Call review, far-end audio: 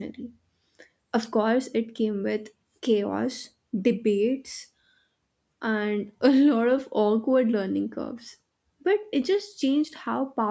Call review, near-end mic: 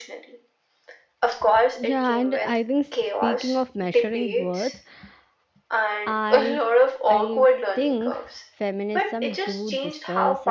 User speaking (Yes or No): Yes